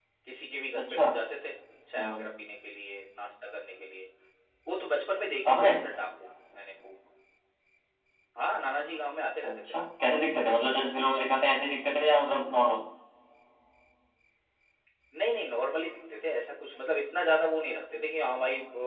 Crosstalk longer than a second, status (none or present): none